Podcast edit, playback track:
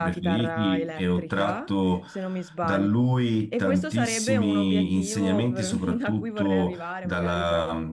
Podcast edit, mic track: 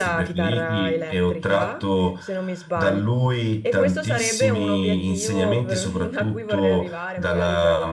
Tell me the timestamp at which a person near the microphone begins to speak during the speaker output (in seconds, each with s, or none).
none